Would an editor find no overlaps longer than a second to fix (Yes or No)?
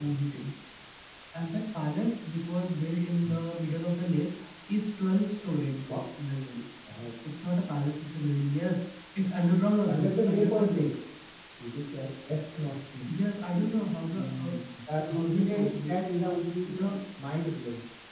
No